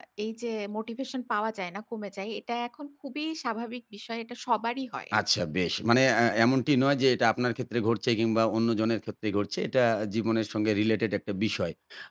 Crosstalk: none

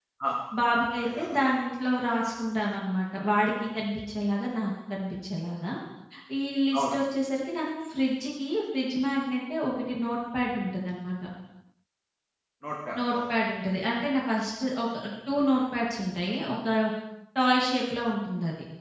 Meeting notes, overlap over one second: none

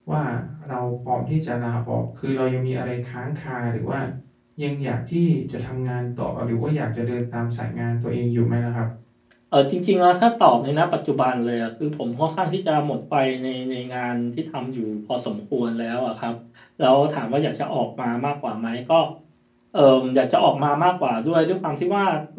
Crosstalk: none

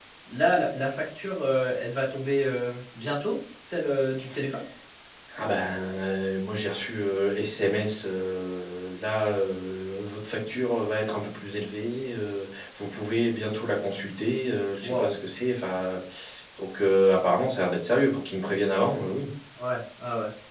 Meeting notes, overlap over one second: none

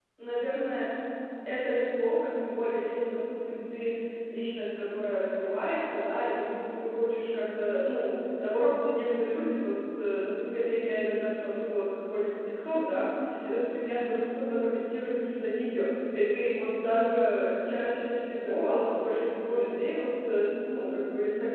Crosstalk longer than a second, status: none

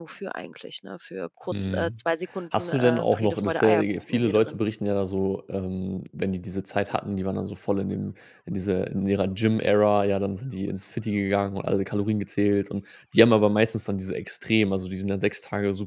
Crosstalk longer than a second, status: present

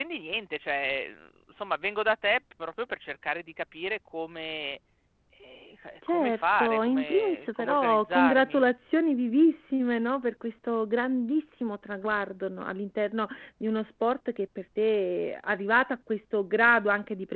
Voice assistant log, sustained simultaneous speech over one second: present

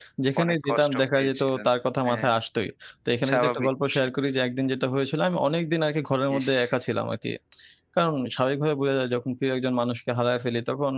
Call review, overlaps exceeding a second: present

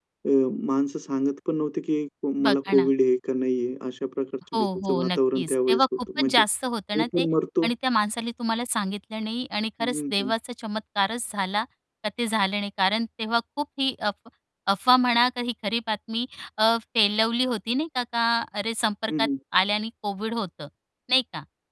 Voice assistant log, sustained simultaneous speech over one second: present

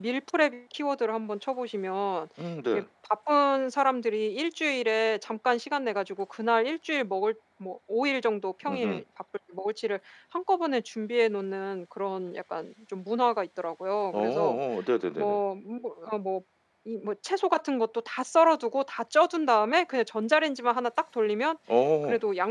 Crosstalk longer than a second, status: none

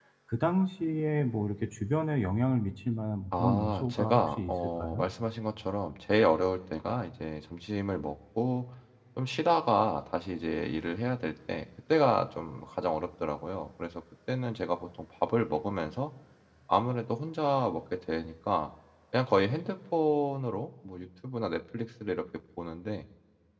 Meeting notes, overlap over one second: present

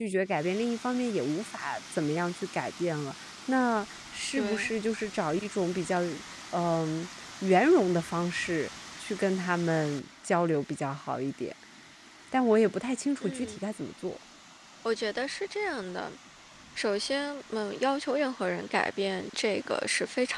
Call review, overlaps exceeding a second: none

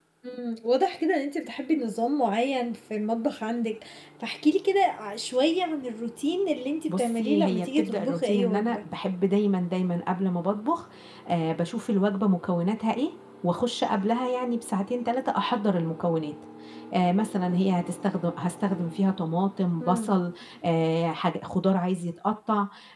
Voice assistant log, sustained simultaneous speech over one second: present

